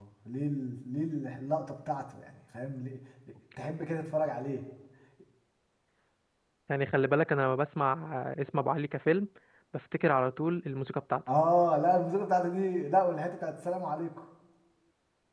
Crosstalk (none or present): none